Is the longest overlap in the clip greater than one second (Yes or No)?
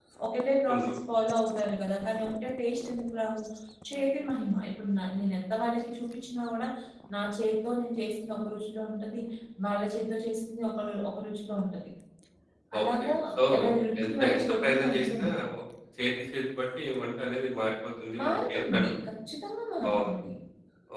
Yes